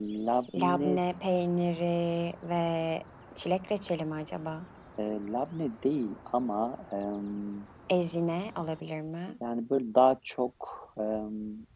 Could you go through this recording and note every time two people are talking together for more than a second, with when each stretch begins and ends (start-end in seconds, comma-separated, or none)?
none